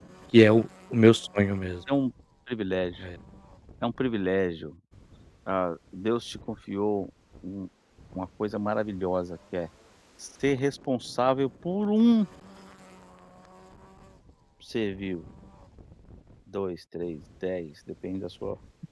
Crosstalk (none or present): none